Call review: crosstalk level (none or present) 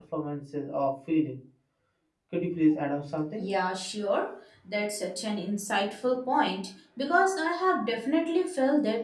none